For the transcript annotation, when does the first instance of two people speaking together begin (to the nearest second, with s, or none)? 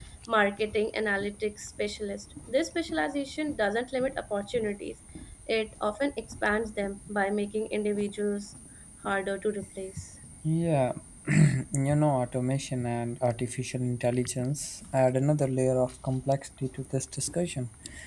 none